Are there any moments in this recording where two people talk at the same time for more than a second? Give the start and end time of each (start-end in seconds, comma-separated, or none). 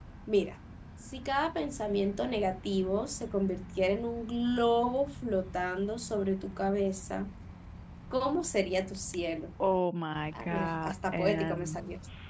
10.4-11.8